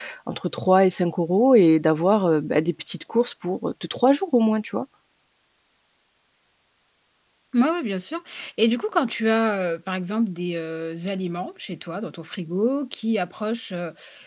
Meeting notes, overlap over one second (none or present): none